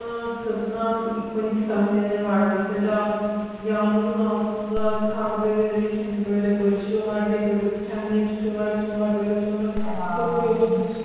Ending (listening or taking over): listening